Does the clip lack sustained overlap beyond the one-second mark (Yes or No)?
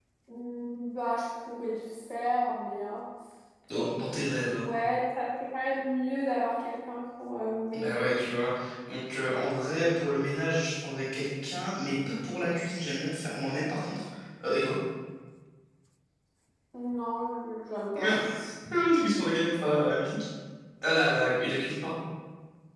Yes